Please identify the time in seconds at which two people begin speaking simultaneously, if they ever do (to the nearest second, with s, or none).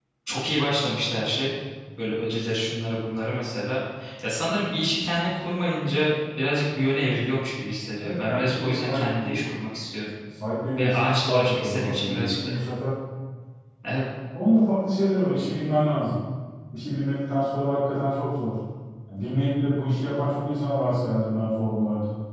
8 s